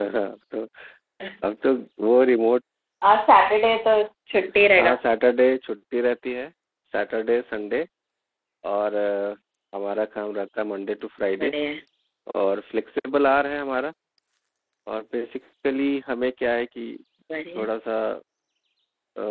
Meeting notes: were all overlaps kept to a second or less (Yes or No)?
Yes